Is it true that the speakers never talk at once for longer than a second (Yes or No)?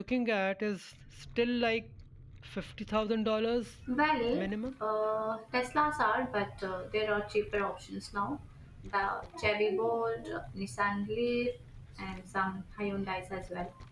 Yes